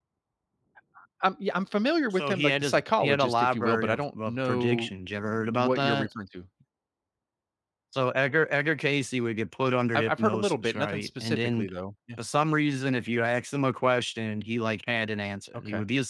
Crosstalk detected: Yes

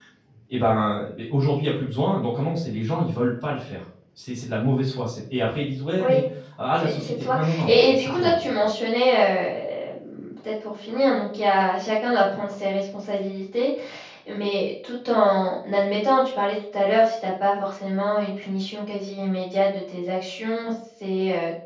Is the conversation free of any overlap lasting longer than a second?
No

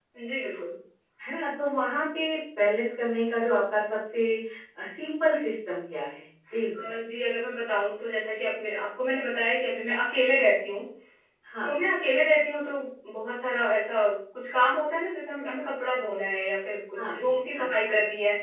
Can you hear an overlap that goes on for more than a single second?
No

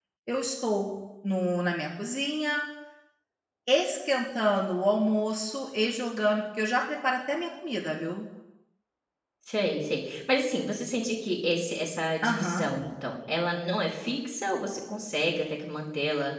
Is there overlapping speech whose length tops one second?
No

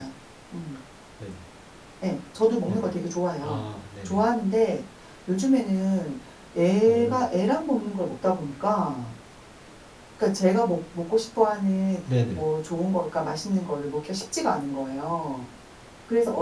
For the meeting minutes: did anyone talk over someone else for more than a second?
No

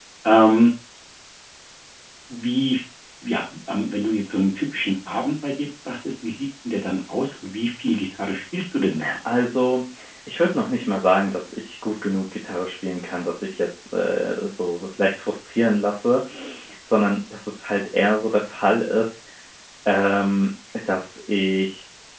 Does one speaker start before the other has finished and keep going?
No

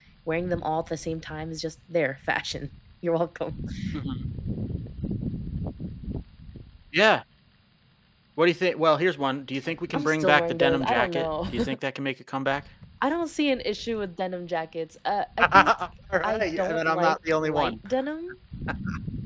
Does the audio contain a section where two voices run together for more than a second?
Yes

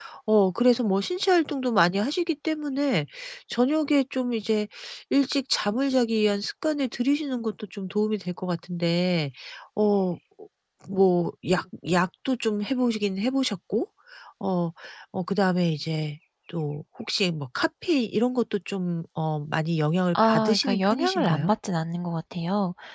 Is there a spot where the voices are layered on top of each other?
Yes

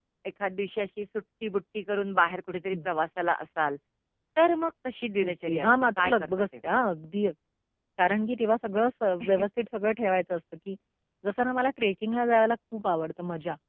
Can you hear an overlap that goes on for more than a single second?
Yes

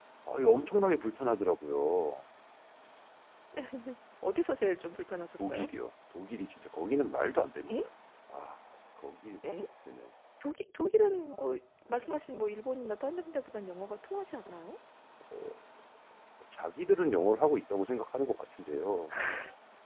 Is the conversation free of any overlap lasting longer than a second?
Yes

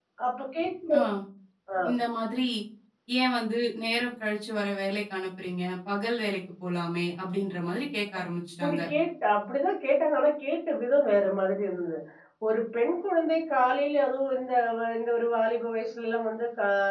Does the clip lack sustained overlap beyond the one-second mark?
Yes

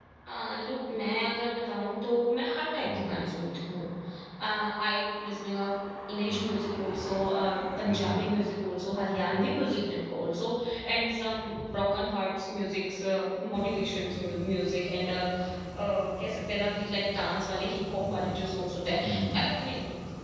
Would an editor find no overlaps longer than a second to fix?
Yes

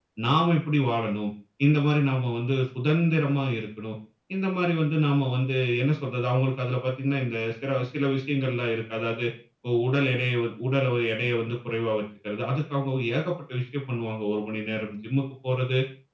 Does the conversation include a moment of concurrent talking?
No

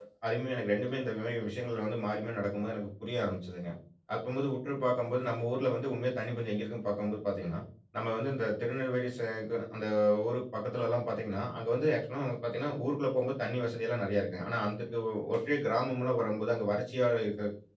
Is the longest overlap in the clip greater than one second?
No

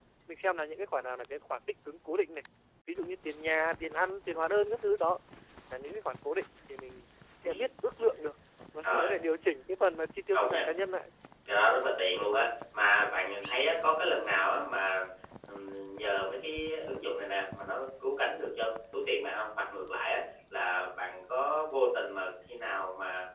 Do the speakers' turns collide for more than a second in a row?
No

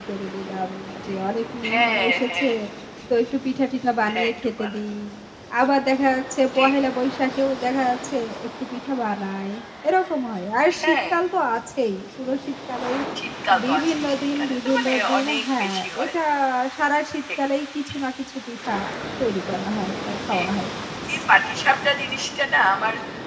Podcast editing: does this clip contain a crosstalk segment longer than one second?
Yes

